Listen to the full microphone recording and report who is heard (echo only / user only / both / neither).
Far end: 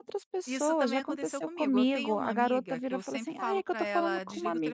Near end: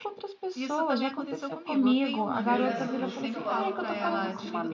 both